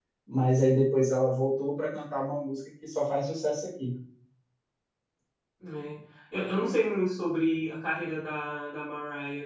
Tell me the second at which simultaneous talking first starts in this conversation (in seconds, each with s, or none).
none